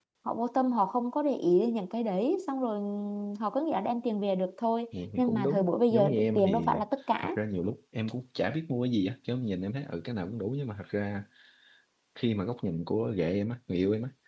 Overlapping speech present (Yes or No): Yes